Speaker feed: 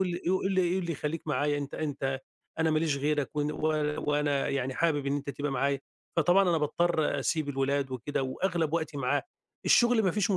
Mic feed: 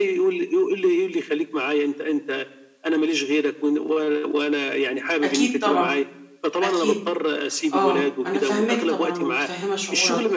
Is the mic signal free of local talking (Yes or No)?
No